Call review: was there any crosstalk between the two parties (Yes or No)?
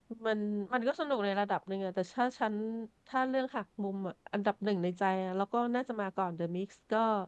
No